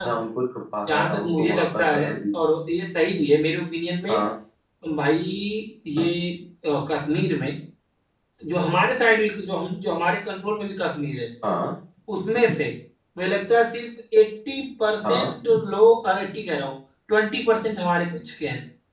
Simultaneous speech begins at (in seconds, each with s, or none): 0.9 s